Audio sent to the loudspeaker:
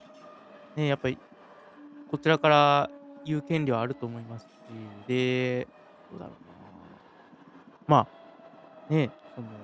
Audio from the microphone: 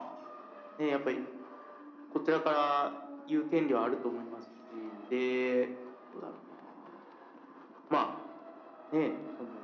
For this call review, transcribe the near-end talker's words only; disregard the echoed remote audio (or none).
none